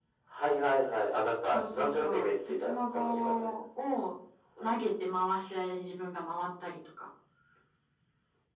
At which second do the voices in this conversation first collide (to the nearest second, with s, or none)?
2 s